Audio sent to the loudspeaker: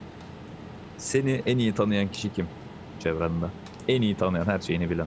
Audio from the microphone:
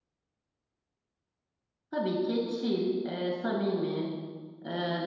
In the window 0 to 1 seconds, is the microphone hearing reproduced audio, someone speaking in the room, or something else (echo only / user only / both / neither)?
neither